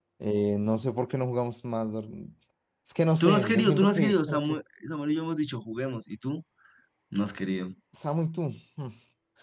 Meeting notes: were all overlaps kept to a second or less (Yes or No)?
No